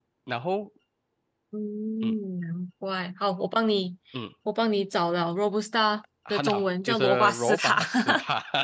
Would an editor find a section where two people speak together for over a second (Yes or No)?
Yes